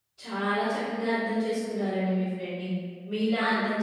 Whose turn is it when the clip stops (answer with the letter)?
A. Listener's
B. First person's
B